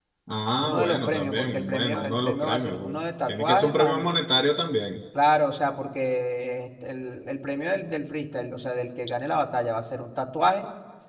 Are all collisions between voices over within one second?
No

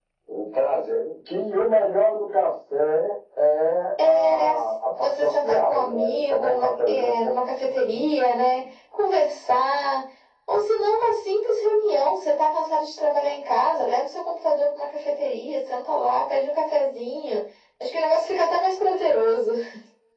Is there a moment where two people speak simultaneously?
Yes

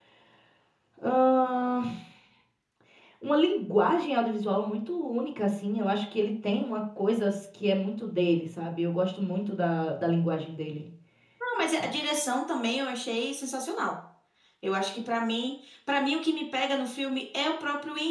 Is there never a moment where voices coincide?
Yes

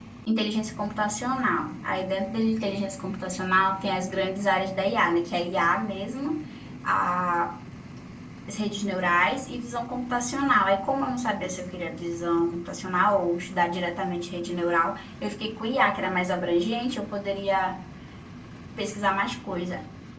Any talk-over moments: No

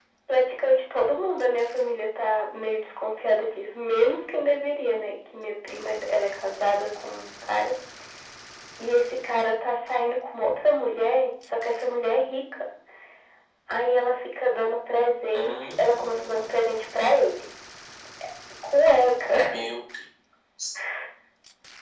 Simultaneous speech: Yes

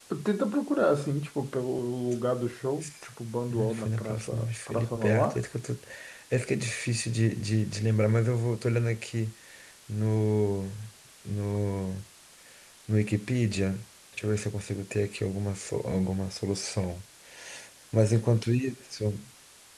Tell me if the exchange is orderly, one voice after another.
No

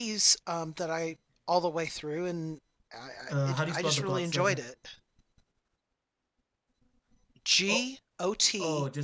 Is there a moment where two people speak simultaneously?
Yes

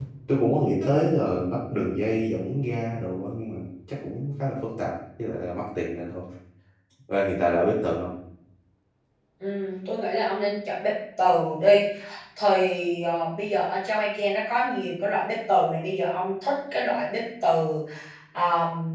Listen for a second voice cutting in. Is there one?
No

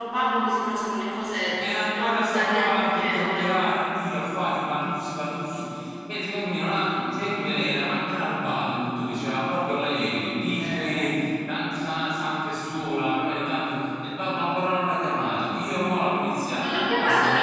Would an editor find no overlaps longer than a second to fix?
No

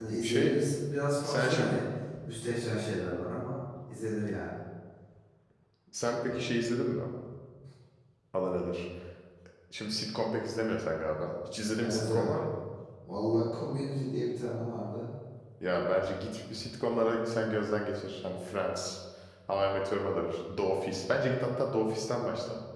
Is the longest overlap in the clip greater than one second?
No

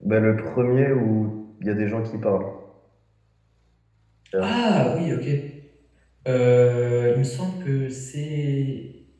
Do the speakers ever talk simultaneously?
No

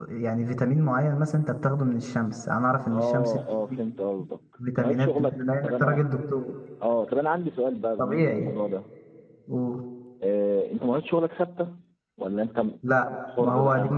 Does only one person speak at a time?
No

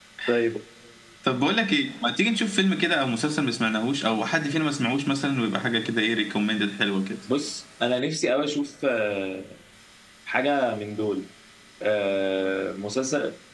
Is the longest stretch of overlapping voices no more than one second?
Yes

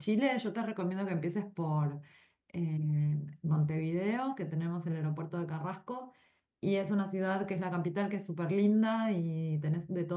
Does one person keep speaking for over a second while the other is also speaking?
No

